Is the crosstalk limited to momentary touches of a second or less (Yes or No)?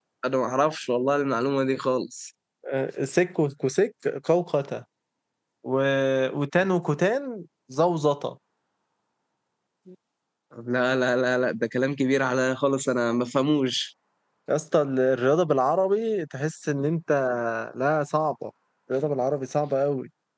Yes